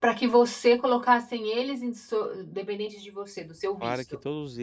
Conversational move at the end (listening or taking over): taking over